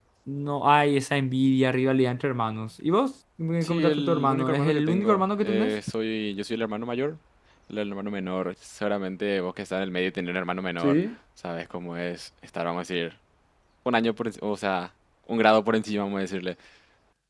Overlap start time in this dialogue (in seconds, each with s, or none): 3.6 s